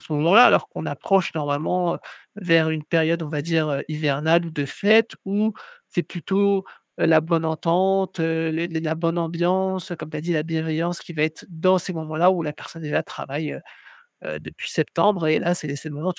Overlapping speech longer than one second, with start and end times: none

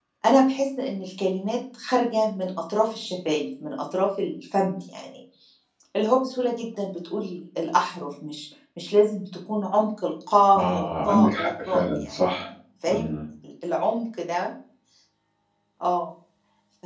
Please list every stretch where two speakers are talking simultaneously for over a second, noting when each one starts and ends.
10.5-12.4

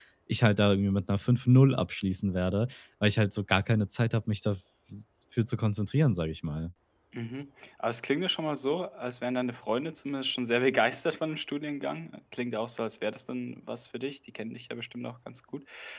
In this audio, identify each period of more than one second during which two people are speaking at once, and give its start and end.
none

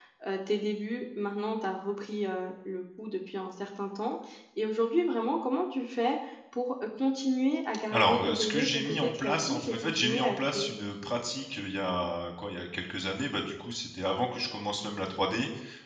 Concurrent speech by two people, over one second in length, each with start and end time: 7.9-10.7

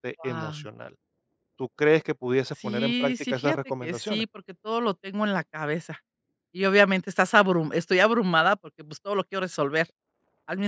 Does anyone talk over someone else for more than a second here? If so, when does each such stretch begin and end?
2.6-4.2

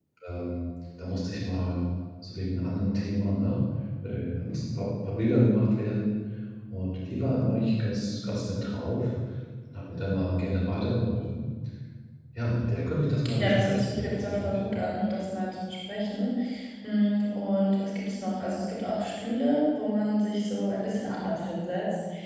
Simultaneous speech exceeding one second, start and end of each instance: 13.4-14.6

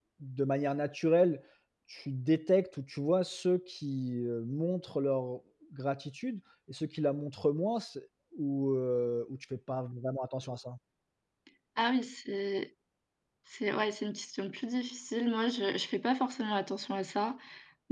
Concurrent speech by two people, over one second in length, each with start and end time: none

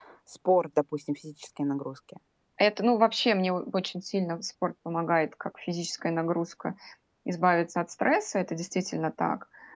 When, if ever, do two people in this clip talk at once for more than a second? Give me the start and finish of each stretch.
none

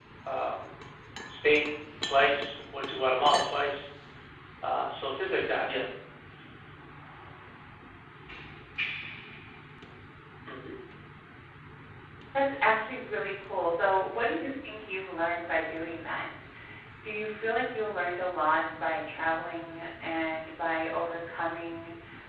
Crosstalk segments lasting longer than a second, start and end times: none

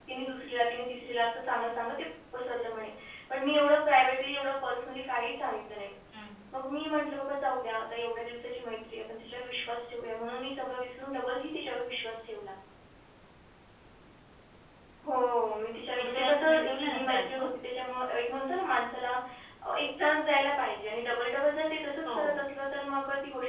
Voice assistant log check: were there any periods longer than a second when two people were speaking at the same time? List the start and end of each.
16.0-17.5

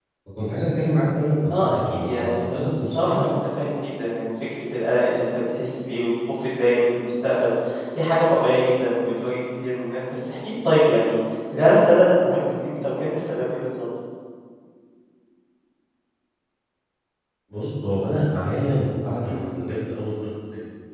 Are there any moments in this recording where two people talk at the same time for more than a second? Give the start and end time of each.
1.5-3.1

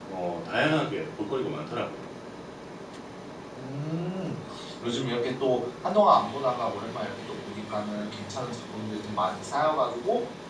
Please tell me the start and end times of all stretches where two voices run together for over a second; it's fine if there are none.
none

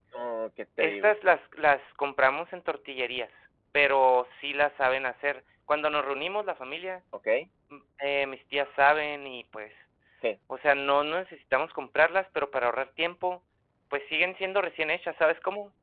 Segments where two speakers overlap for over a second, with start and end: none

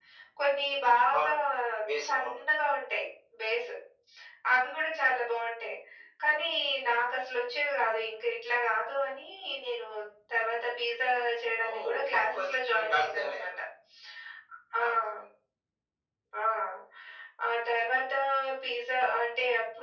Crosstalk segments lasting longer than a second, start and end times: 11.7-13.5

